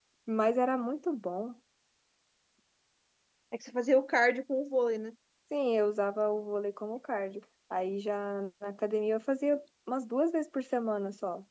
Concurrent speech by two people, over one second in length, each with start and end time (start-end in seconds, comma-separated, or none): none